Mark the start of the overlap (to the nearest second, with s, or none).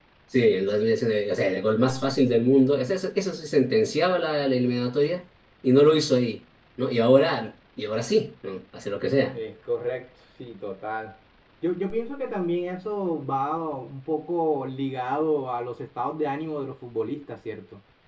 none